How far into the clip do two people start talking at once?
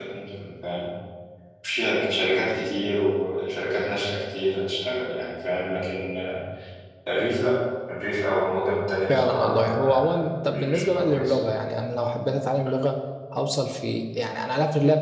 9.1 s

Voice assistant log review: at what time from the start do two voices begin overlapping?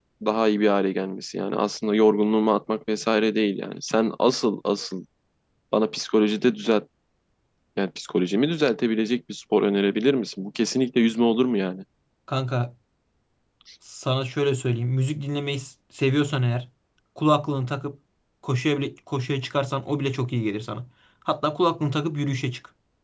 none

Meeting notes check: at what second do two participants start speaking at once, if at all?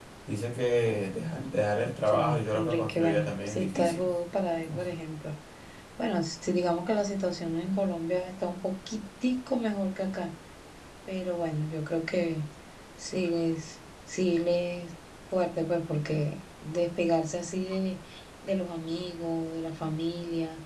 1.9 s

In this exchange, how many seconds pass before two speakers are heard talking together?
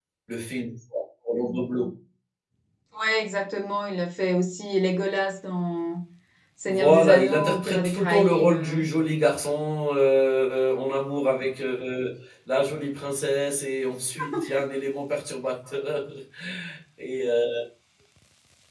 6.7 s

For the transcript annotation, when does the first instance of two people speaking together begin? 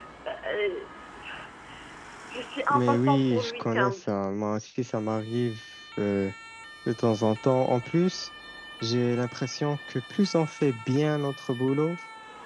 2.7 s

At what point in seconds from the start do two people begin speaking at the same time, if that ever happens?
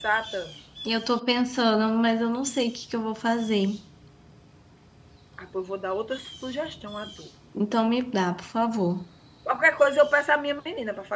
none

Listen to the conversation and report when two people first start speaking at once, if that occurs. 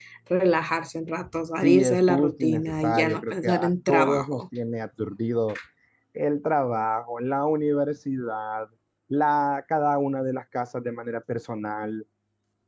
1.6 s

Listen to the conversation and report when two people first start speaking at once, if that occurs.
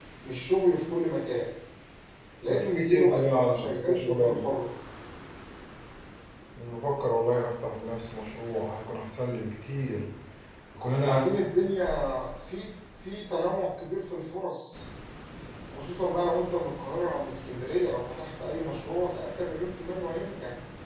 2.5 s

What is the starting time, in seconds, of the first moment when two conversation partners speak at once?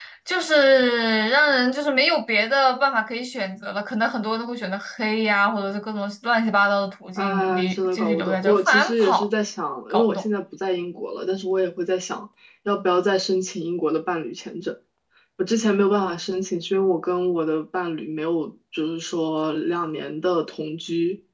7.2 s

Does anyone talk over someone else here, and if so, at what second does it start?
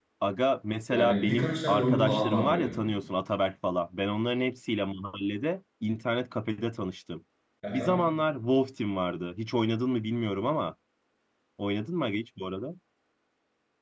0.9 s

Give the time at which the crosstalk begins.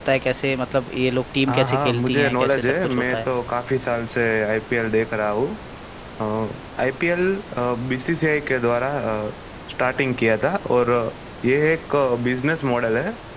1.5 s

